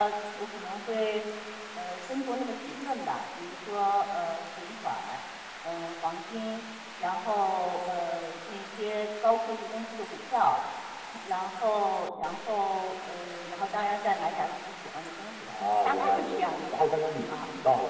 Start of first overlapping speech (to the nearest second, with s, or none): 15 s